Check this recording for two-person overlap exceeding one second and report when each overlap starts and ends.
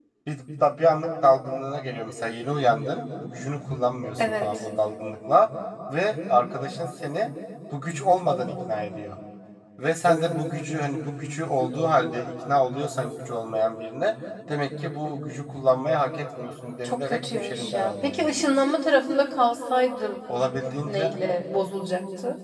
16.8-18.3

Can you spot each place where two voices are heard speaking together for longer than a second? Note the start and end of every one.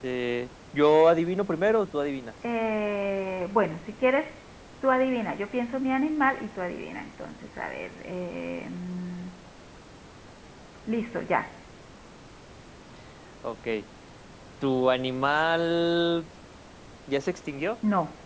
none

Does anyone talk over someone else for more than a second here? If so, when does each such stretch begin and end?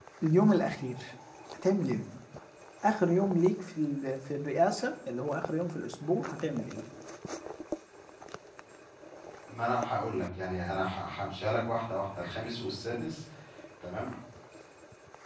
none

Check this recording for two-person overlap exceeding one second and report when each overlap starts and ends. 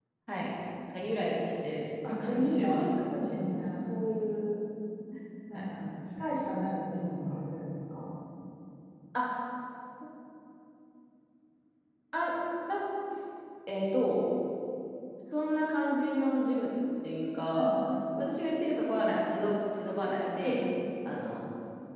2.0-3.6

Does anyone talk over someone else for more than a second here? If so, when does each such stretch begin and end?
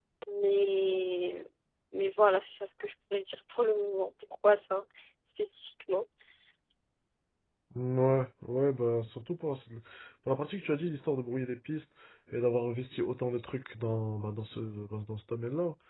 none

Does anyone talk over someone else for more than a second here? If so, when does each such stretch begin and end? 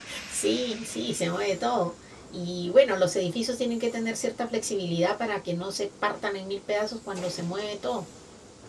none

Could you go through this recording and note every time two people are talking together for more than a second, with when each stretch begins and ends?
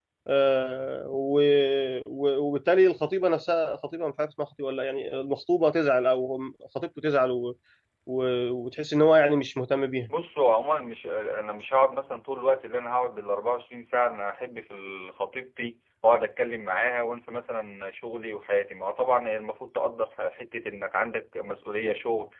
none

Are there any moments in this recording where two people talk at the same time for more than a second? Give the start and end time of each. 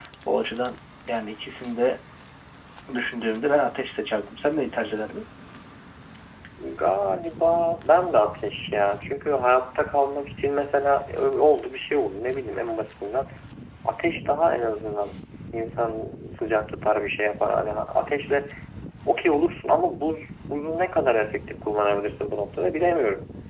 none

